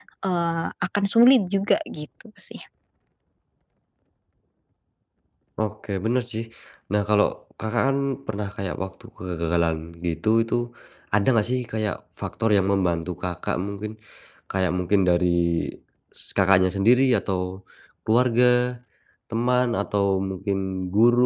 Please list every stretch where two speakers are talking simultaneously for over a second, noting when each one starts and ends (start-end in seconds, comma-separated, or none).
none